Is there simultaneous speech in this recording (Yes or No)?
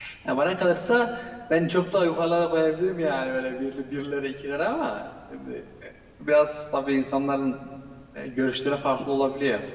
No